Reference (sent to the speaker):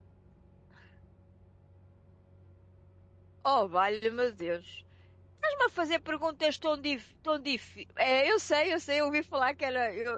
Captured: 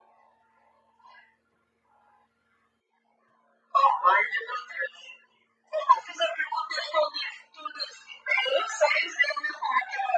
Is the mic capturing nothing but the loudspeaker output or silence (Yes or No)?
Yes